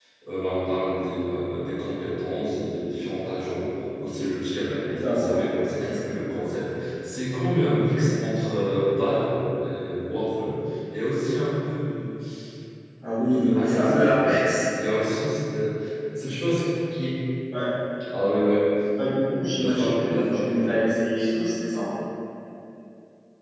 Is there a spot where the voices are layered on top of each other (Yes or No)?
Yes